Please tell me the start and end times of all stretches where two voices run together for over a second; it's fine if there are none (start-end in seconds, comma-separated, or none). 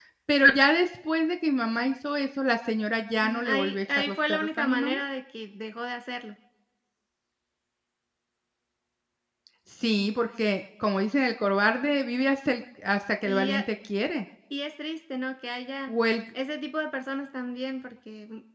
3.2-5.0